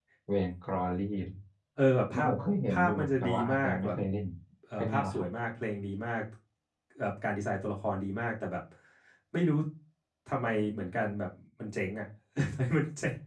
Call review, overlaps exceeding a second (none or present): present